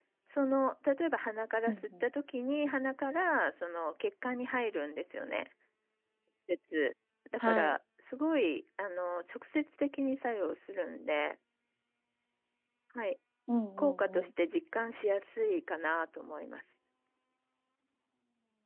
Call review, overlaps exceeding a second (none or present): none